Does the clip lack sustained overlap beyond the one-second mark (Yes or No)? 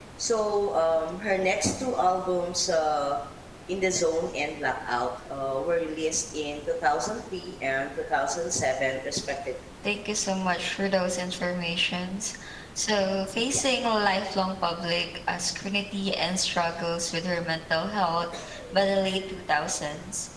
Yes